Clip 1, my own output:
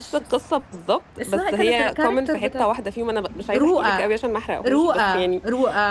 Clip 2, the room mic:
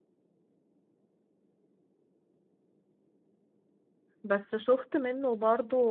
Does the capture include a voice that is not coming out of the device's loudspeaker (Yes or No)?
Yes